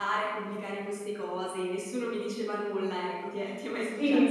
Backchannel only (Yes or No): No